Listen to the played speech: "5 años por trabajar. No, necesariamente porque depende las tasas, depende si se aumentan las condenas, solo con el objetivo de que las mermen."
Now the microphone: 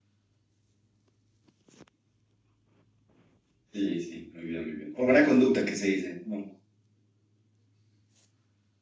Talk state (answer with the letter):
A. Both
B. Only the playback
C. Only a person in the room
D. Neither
C